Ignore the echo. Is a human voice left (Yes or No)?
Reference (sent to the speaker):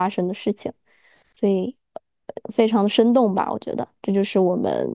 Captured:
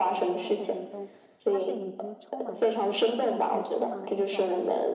Yes